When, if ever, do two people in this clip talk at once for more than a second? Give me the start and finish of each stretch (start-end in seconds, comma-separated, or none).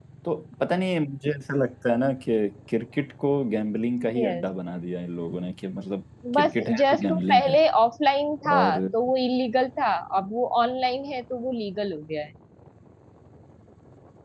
6.3-7.6